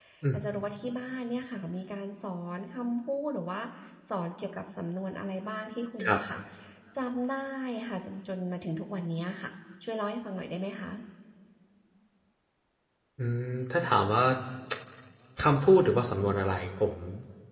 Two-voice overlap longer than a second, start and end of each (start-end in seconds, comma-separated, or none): none